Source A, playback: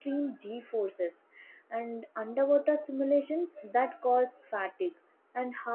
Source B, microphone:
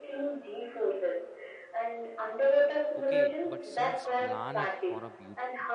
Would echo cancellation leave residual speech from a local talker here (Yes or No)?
Yes